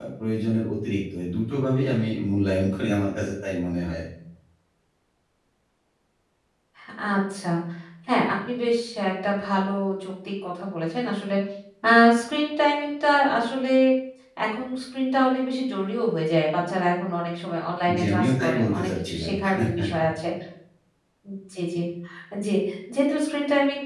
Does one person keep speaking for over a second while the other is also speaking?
Yes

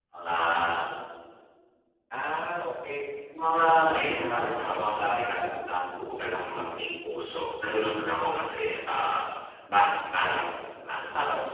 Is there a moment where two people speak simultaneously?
Yes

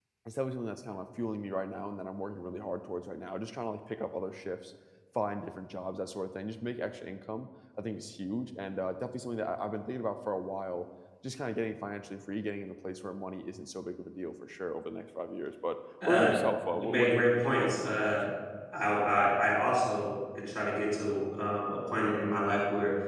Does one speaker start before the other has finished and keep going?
Yes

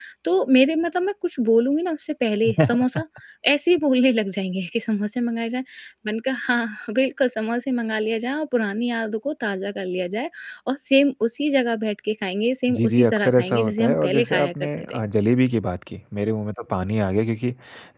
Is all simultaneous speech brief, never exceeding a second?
No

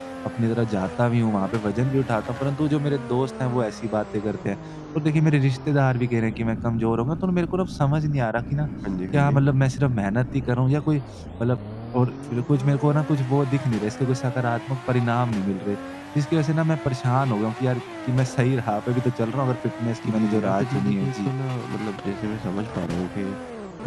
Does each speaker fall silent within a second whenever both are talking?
No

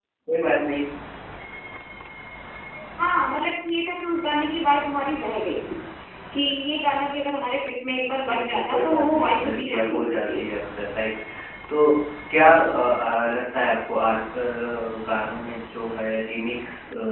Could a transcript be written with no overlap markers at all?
No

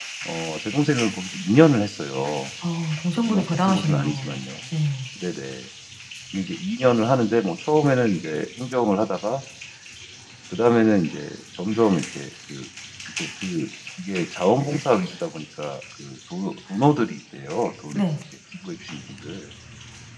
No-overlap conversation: No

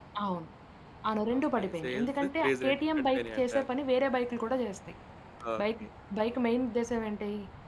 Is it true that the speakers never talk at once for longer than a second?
No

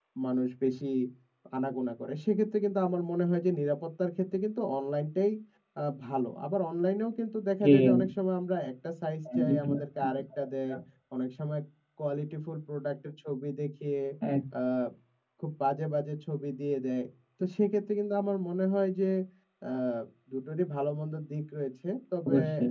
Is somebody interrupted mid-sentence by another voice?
Yes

